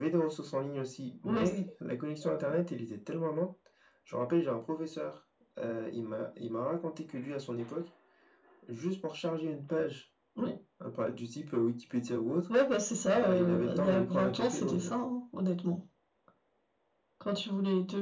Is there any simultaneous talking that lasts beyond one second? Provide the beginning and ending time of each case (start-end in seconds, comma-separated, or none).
13.1-14.9